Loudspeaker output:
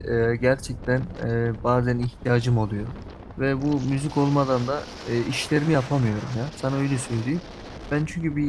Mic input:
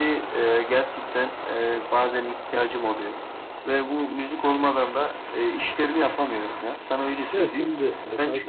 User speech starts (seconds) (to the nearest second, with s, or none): 7 s